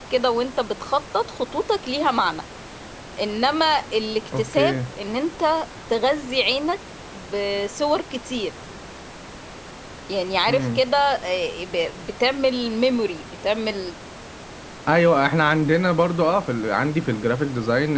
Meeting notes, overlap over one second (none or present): none